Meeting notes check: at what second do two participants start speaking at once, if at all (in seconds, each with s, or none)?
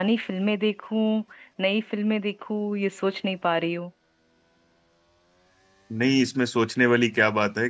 none